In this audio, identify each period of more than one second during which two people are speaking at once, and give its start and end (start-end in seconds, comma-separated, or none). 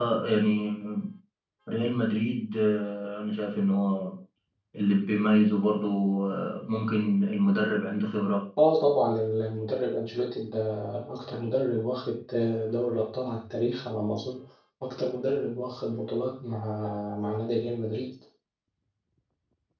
none